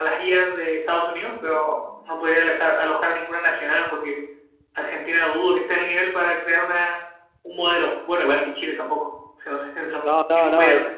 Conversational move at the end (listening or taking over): taking over